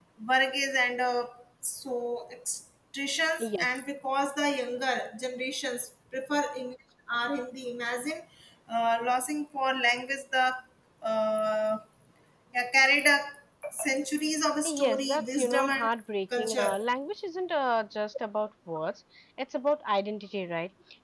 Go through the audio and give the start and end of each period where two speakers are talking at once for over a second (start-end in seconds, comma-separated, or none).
14.7-15.9